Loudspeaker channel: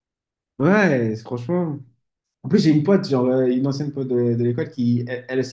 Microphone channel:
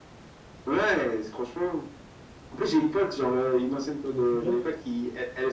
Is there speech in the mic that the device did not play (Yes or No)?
Yes